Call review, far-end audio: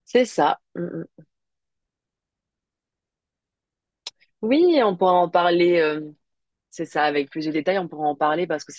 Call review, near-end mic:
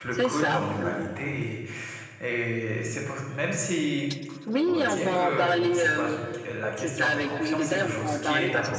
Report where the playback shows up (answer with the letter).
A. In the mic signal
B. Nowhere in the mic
A